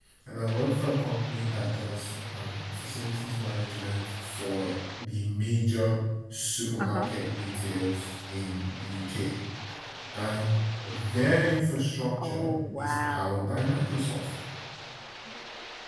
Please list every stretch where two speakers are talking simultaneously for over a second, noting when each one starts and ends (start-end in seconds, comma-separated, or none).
12.2-13.5